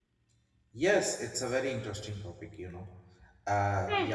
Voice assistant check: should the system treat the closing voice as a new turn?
No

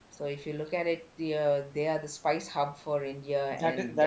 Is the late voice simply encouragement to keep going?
No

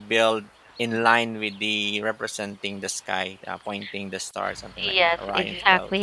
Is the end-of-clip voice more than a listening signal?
Yes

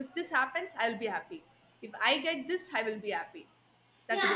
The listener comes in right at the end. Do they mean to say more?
Yes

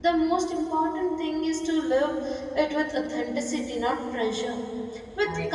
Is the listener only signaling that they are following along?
Yes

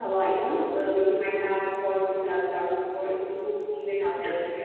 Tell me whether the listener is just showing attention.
Yes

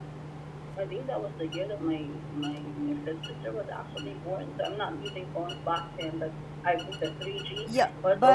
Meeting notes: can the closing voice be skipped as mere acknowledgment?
No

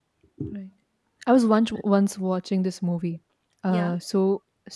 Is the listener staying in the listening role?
Yes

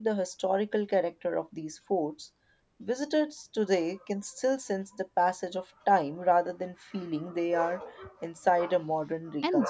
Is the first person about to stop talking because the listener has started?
Yes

